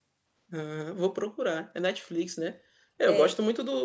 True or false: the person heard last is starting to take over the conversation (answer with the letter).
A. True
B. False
B